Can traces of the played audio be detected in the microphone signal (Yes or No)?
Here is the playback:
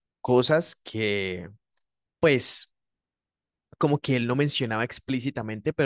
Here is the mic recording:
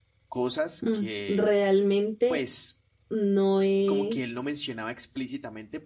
Yes